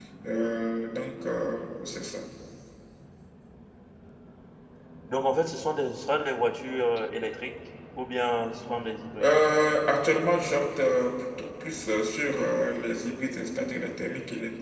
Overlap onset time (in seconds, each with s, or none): none